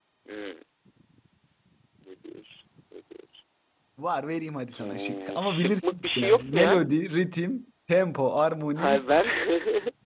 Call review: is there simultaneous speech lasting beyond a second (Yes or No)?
Yes